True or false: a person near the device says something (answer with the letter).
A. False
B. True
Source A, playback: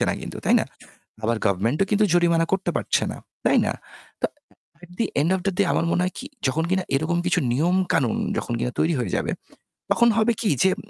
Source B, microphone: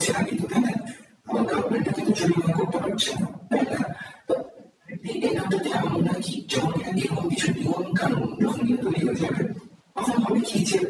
A